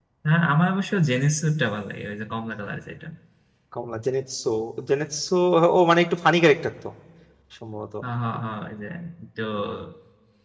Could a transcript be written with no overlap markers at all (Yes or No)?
Yes